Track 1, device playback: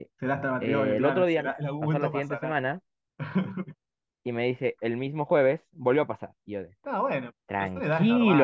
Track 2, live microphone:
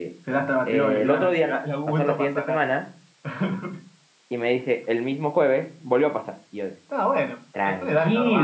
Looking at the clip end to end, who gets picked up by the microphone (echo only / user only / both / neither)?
echo only